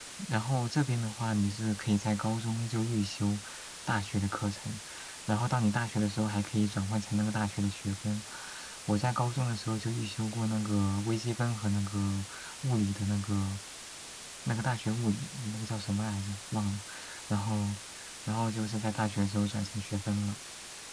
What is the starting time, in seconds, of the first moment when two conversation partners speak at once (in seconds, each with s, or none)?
none